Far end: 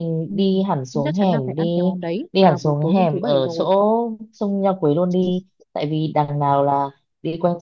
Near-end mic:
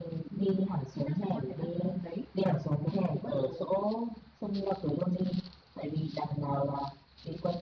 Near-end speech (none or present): none